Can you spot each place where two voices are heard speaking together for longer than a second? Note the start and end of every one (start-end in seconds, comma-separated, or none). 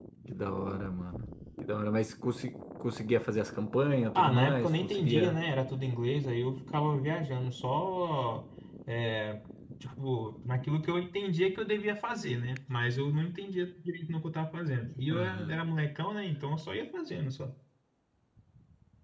4.2-5.4